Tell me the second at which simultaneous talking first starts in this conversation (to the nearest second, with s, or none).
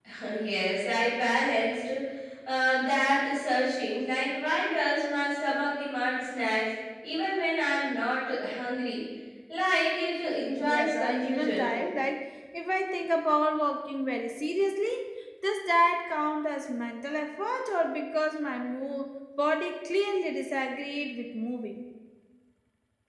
10 s